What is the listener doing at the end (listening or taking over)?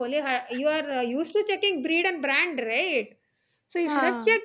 listening